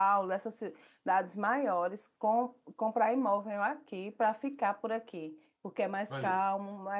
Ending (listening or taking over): listening